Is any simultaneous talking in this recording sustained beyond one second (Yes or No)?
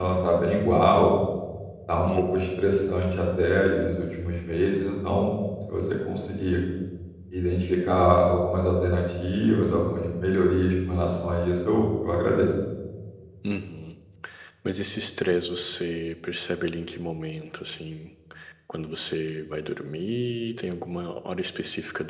No